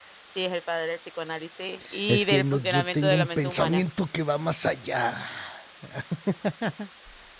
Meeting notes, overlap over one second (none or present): present